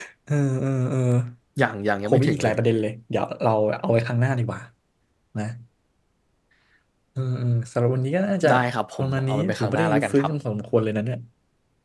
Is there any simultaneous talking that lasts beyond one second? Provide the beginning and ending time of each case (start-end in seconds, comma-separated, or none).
9.0-10.3